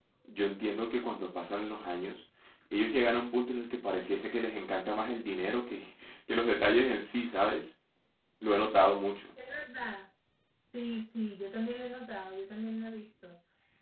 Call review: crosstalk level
none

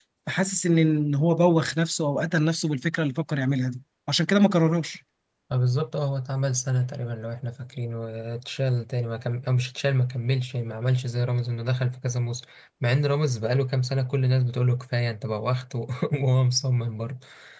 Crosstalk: none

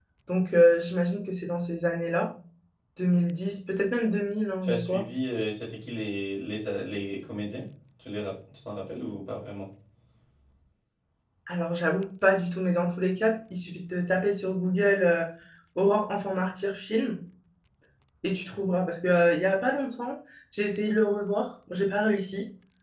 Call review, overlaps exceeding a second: none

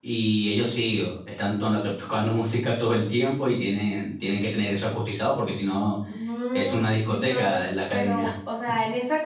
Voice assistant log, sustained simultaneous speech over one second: present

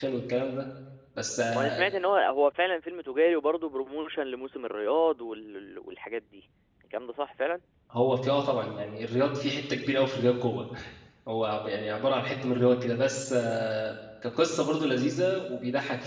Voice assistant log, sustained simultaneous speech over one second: none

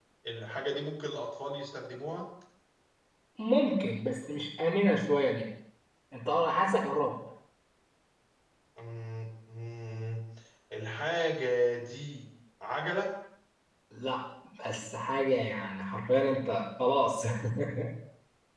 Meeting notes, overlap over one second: none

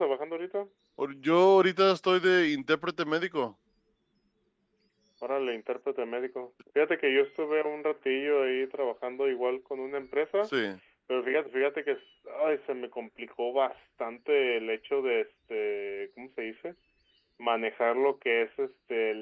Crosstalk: none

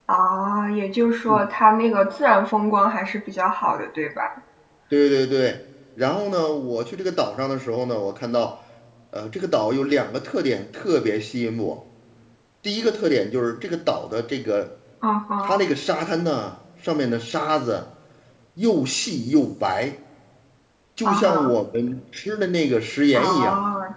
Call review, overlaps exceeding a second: none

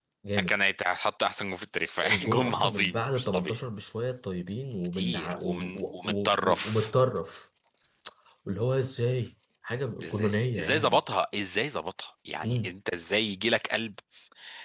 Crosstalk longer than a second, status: present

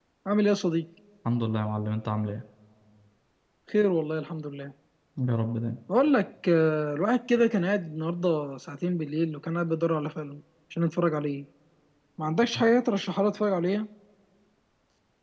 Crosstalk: none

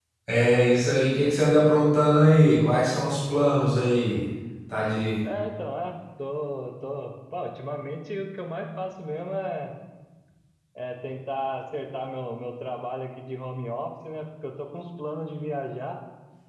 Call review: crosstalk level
none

